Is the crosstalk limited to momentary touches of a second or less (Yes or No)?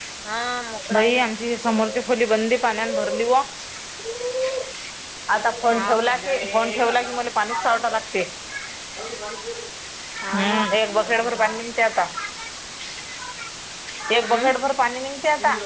No